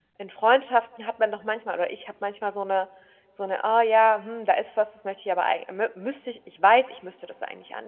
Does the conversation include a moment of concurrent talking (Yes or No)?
No